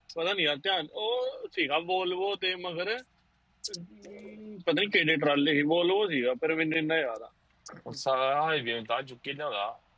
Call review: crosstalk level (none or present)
none